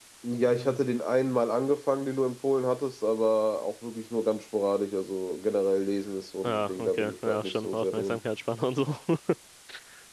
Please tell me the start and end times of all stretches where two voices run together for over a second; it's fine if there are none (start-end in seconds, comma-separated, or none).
6.4-8.2